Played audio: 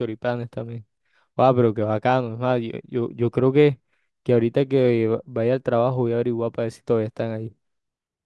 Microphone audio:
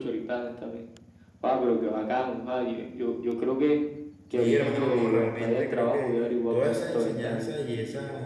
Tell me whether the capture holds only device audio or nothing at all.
No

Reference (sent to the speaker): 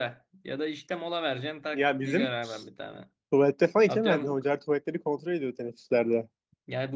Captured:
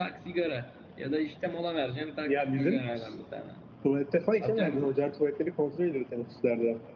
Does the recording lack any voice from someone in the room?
Yes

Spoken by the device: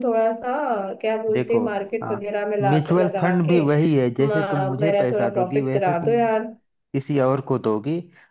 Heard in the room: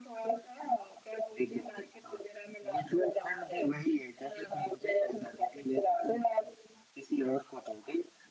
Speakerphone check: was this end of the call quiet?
Yes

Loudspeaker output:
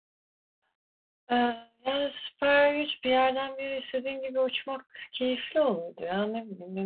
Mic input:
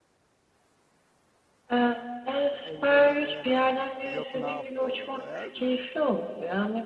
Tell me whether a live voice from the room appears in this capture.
Yes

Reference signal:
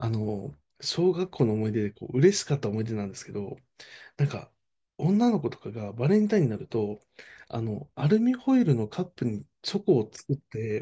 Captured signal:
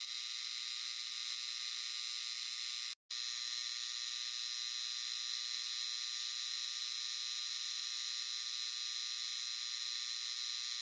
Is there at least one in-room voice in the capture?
No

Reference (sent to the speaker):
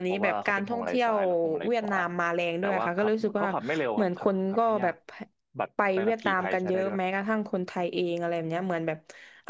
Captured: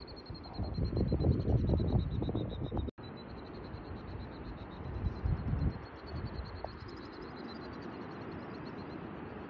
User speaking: No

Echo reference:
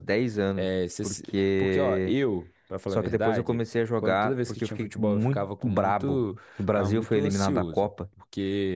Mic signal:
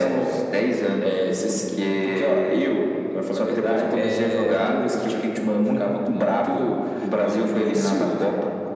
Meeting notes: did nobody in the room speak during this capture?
No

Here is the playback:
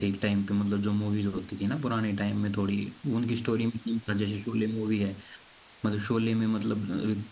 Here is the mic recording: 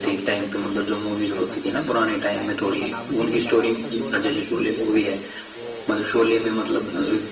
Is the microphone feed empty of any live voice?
No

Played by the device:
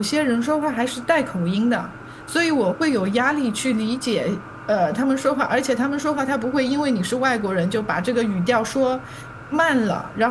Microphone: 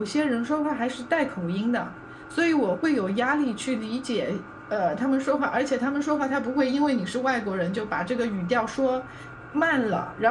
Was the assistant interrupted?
No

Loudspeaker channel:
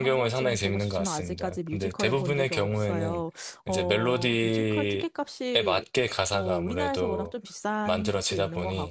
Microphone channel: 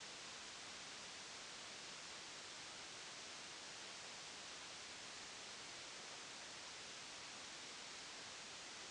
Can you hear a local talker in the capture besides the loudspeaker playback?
No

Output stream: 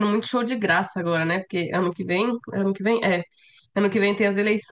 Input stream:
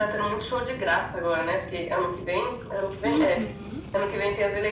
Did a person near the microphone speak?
Yes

